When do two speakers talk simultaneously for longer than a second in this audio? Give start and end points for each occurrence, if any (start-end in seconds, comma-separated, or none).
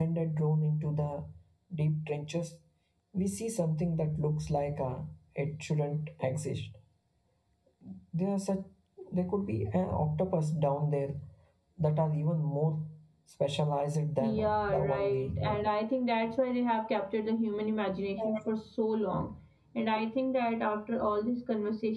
14.2-15.6